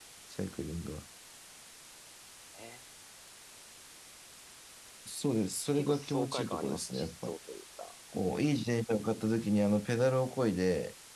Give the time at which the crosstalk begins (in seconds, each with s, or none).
5.8 s